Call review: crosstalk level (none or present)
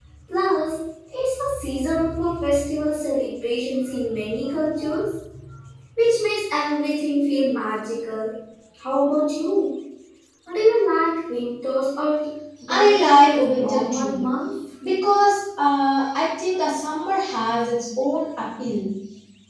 present